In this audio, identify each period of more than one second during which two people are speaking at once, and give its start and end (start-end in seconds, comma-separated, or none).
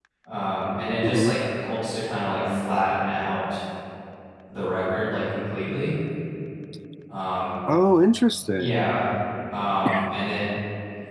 none